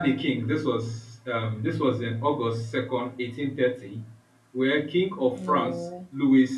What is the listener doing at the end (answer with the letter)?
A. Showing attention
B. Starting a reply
A